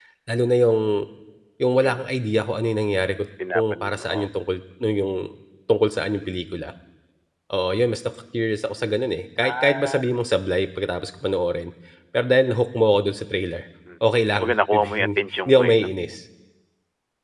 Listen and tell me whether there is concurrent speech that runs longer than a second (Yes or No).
Yes